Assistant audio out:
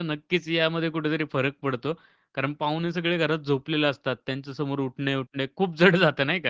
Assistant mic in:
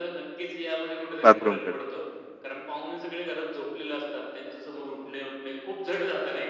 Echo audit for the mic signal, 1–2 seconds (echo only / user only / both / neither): both